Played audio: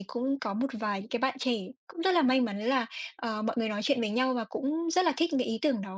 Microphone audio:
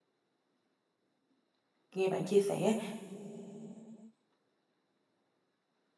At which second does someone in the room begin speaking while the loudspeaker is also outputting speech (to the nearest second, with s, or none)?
2 s